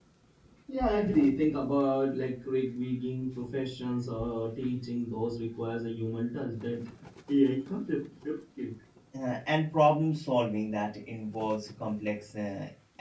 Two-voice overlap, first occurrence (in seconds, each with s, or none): none